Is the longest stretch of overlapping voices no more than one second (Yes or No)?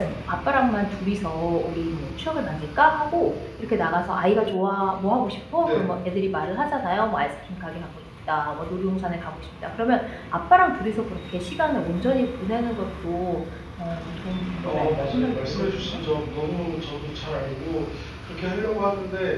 No